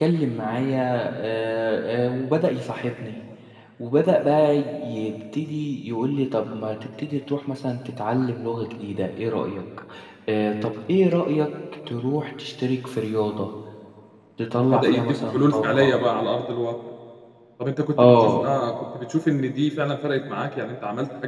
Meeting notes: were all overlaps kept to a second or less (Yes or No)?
No